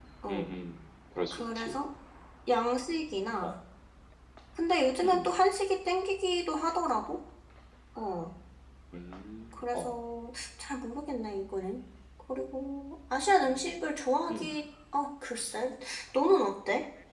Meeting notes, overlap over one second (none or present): none